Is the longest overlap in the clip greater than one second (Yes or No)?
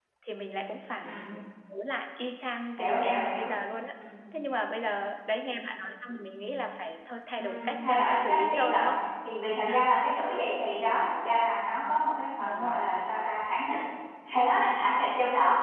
Yes